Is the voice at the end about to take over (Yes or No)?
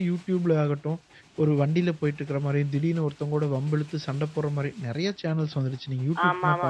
Yes